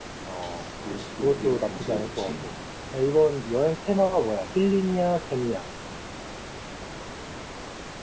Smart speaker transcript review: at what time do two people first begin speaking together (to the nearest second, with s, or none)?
1 s